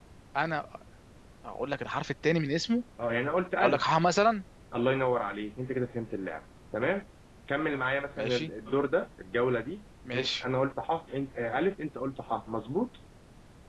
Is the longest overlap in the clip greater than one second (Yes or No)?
No